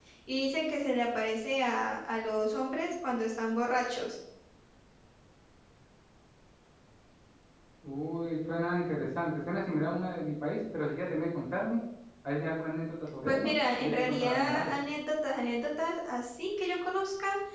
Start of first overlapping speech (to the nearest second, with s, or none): 13 s